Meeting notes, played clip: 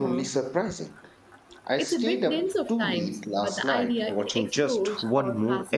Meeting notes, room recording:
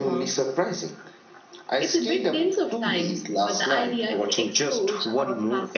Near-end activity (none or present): none